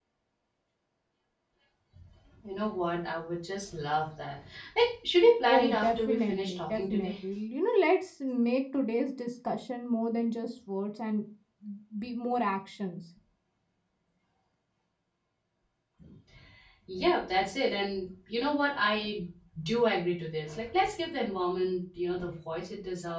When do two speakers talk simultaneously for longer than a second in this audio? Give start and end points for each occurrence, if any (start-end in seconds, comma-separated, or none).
5.5-7.2